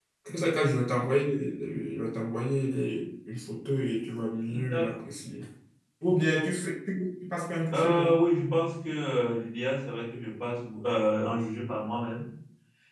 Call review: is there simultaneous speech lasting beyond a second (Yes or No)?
No